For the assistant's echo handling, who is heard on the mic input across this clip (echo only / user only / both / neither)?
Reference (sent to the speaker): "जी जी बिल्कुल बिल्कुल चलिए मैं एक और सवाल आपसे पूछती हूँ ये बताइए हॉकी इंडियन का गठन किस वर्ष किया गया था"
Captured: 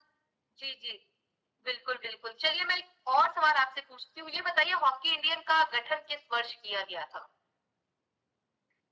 echo only